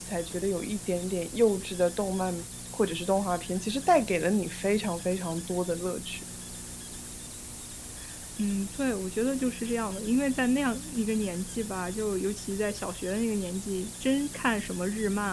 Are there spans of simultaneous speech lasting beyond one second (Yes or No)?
No